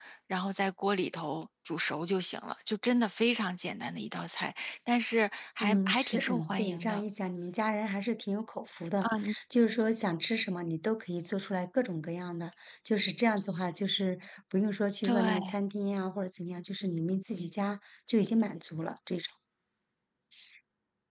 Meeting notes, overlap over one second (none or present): present